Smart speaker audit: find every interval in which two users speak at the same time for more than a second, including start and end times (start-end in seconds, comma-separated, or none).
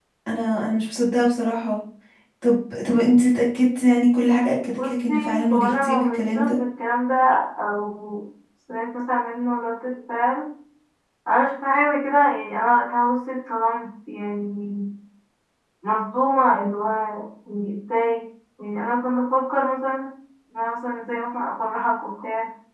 4.8-6.6